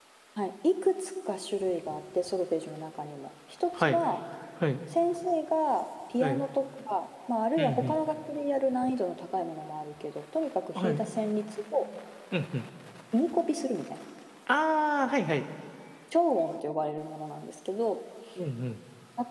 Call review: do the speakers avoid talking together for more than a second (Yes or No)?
Yes